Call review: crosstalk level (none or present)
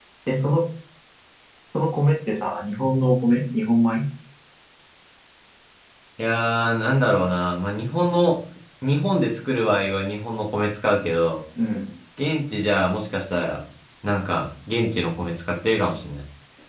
none